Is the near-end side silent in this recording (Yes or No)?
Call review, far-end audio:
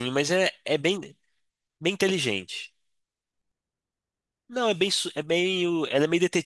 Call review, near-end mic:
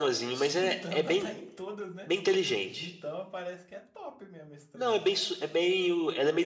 No